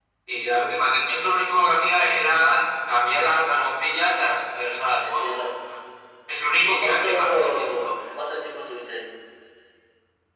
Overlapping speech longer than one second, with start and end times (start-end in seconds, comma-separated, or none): 6.6-7.9